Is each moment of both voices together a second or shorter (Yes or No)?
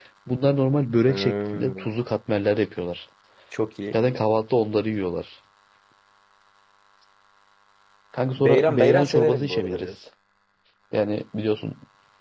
No